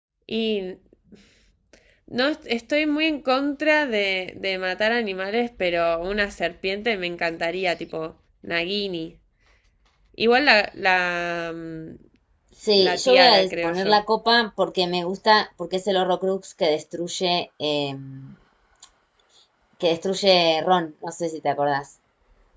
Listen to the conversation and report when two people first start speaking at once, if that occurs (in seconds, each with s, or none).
12.8 s